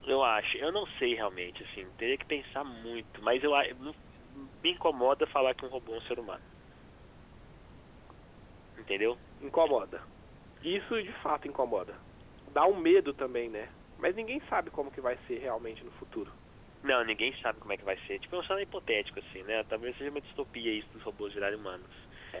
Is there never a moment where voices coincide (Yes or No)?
Yes